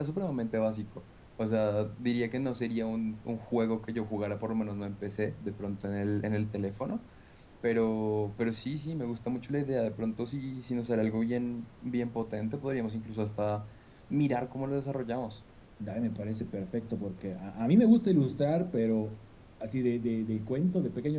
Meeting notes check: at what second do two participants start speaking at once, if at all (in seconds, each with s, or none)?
none